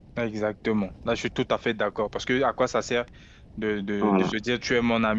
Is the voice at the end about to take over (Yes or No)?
No